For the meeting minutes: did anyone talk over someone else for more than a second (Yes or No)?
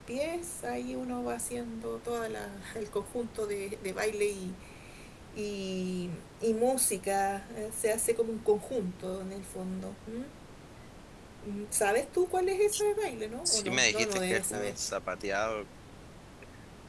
Yes